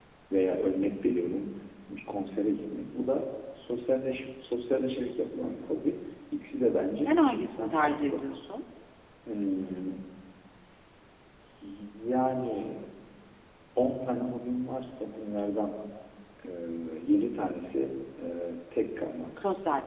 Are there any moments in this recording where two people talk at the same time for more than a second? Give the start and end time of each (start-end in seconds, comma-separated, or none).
7.0-8.2